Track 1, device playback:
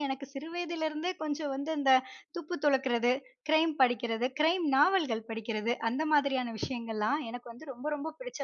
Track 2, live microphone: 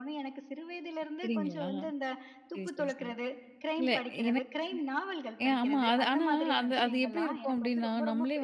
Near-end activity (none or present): present